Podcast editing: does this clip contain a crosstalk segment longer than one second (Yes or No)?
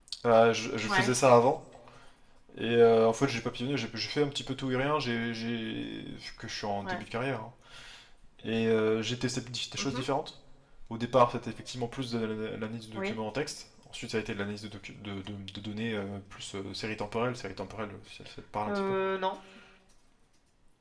No